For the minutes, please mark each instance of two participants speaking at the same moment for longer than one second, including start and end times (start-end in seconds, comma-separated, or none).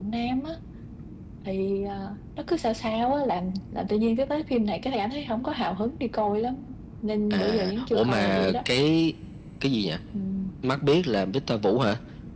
7.3-8.6